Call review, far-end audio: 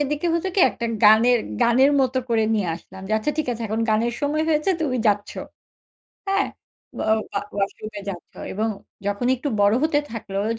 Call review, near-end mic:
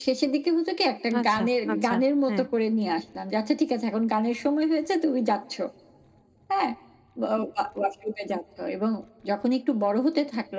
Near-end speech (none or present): present